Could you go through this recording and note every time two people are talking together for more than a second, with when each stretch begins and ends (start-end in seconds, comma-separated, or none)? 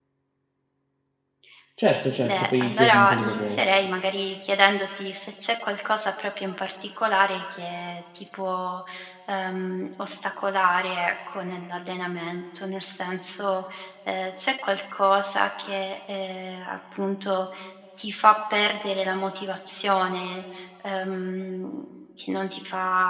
2.2-3.6